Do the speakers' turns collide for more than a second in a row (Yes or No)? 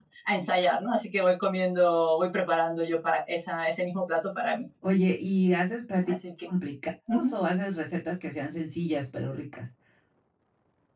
No